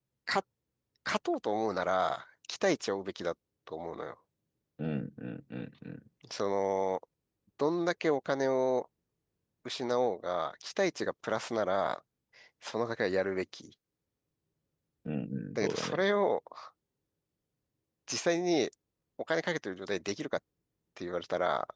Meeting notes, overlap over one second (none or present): none